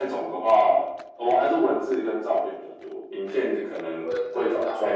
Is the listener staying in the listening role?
No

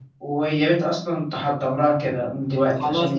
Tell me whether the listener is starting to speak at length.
Yes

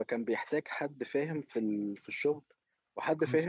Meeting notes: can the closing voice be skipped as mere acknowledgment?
Yes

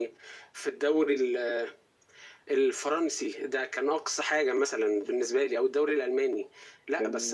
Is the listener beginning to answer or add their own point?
No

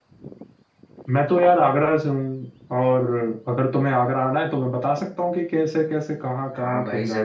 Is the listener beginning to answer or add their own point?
Yes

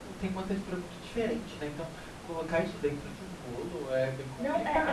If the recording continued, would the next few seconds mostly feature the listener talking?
Yes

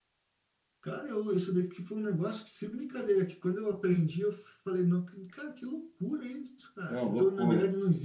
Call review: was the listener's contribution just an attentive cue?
Yes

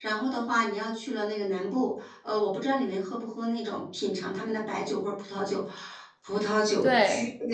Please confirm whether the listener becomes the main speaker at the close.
No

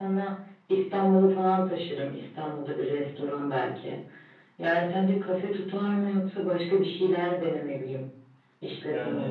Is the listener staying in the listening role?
No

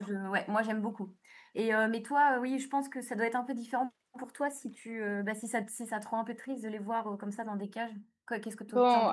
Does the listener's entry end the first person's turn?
Yes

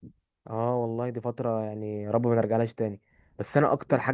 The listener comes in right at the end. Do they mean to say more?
No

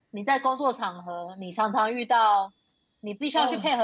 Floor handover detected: No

